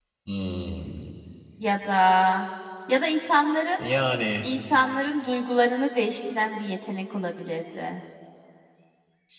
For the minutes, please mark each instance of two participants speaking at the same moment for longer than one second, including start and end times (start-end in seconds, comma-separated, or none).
none